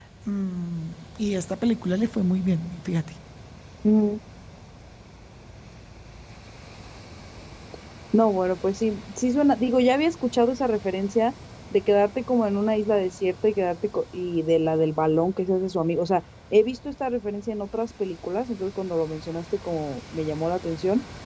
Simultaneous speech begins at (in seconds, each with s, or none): none